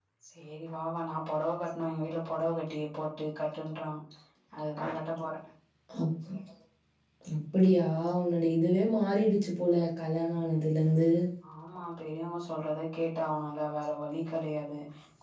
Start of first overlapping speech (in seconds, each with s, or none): none